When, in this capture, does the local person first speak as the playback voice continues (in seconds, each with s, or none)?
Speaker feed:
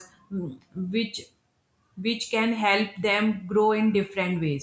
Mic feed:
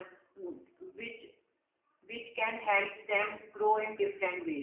none